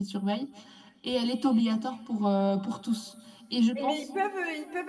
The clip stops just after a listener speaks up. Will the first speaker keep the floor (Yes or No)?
No